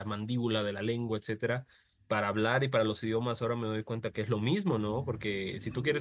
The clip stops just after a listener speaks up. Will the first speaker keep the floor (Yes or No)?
Yes